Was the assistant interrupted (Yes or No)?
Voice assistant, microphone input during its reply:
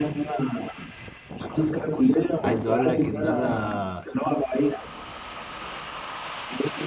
Yes